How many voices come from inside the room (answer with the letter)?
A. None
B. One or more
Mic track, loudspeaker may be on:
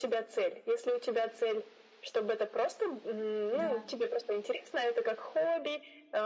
B